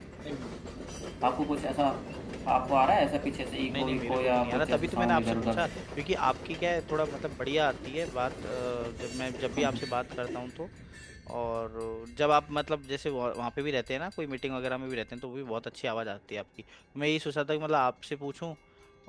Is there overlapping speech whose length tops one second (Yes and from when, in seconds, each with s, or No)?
Yes, from 3.7 s